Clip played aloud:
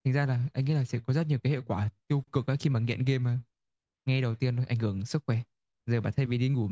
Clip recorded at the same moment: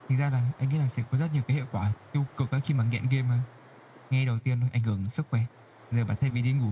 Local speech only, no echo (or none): none